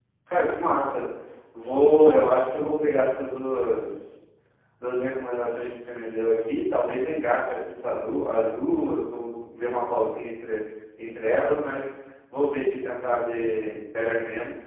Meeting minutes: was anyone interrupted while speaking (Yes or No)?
No